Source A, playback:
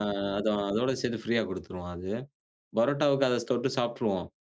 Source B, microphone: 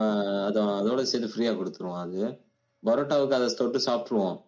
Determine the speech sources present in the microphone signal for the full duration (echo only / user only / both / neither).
echo only